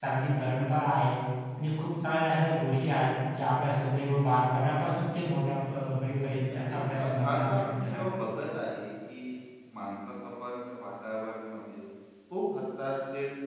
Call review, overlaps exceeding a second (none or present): present